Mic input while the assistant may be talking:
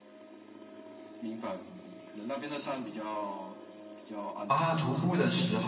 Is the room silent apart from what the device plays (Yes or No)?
No